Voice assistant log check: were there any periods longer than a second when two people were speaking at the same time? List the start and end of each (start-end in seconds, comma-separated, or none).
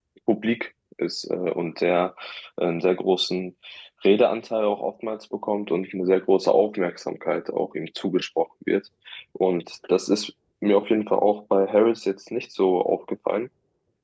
none